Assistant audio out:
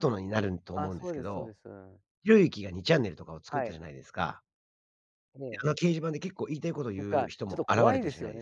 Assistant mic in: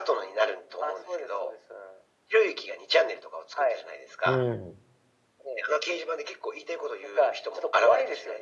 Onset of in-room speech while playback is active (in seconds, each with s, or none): 4.2 s